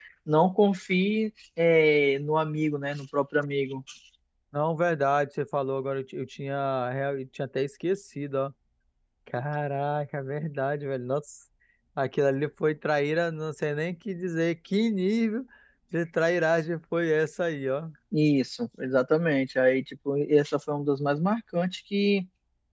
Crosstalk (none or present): none